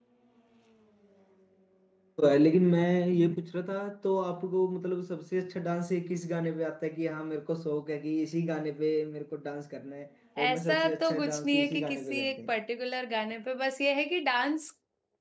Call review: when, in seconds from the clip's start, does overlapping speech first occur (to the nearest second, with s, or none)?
10 s